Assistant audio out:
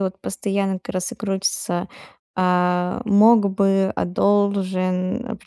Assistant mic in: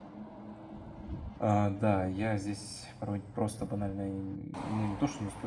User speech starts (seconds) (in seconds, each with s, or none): 1.4 s